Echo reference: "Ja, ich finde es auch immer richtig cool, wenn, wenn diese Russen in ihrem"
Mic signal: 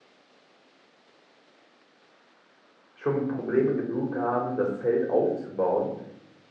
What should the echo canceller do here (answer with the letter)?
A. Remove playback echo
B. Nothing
B